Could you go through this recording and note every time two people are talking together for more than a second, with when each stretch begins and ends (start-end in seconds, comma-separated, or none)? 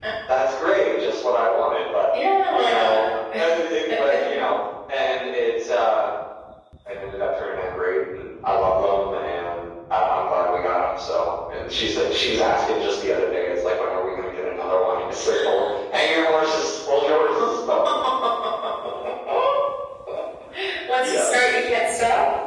none